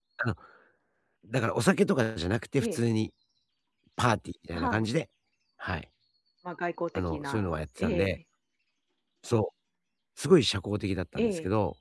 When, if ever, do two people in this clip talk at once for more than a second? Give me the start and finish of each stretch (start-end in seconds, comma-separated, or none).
7.0-8.2